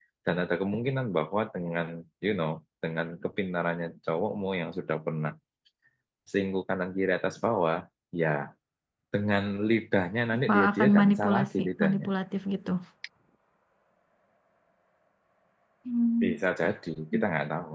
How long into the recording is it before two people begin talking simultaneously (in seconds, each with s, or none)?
10.3 s